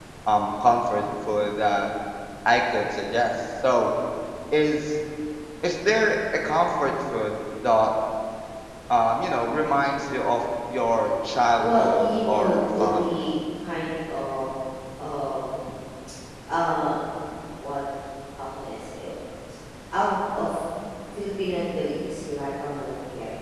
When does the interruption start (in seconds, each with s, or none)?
11.6 s